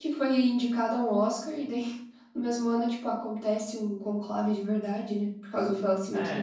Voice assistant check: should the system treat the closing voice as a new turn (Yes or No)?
No